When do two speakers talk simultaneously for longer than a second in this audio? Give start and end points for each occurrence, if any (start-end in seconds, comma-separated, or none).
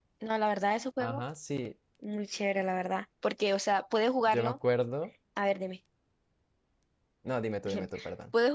none